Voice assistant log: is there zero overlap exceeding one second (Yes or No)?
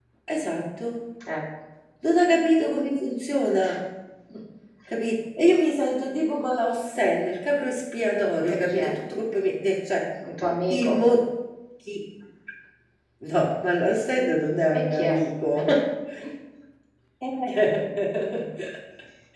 Yes